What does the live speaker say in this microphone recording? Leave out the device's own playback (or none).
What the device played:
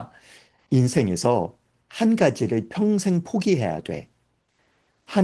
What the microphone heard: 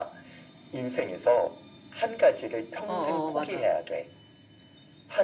어, 어, 맞아.